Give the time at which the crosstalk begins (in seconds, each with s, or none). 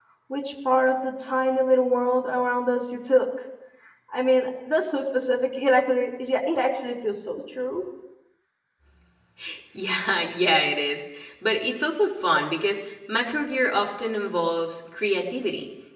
none